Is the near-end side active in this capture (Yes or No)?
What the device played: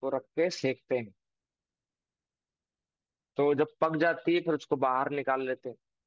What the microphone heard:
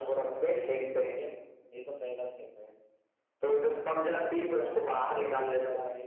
Yes